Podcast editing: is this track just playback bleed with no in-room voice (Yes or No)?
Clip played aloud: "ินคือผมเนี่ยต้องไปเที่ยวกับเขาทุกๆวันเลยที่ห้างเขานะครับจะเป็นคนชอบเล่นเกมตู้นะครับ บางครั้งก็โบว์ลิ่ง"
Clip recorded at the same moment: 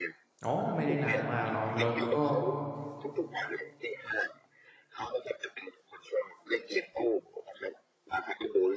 No